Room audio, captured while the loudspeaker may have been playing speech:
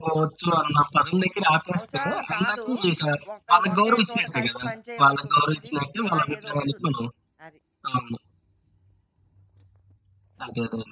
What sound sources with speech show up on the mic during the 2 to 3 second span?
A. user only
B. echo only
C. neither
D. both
D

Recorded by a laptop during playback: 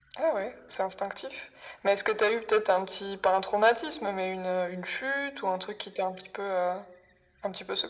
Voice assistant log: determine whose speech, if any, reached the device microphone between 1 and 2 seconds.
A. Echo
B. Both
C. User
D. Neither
A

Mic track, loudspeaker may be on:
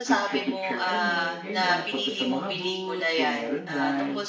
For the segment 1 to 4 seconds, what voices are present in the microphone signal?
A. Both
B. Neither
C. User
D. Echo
A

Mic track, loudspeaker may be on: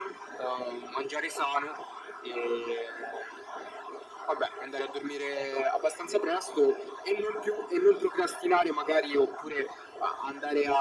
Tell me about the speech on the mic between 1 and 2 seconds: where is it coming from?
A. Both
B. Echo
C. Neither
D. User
B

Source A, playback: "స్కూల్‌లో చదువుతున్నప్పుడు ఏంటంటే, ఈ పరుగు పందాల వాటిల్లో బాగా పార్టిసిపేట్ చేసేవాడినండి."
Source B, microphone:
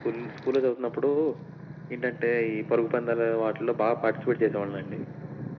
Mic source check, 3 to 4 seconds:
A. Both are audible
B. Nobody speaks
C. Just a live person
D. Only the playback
D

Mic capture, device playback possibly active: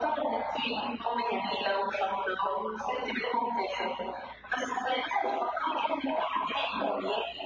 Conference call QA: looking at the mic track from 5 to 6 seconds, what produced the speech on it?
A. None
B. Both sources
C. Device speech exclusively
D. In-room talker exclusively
C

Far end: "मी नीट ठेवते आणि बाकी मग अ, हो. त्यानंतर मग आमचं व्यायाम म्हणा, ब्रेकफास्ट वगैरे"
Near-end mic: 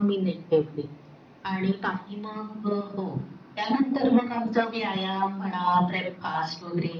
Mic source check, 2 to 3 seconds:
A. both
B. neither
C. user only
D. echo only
D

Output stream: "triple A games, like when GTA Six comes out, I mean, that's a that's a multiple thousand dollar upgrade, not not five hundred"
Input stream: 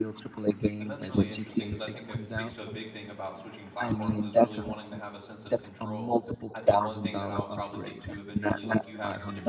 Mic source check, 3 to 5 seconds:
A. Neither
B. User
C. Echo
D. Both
D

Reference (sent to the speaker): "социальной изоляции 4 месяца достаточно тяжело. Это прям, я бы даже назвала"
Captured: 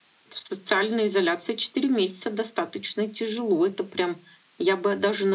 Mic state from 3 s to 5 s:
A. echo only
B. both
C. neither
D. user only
A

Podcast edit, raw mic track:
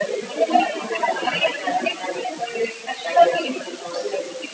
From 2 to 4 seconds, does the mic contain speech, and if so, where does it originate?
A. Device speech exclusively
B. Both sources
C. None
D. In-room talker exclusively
A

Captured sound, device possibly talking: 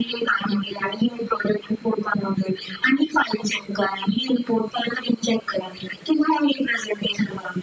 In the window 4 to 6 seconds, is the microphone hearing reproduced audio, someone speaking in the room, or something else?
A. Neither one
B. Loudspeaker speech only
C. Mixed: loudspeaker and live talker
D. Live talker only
B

